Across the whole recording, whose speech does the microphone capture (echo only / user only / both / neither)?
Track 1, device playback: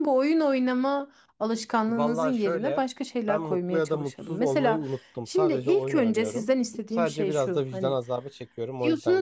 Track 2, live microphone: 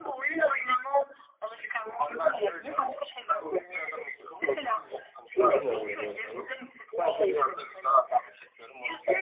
both